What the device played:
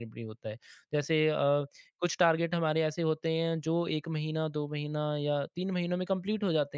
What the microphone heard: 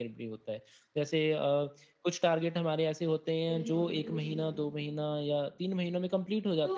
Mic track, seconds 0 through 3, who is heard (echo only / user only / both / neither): echo only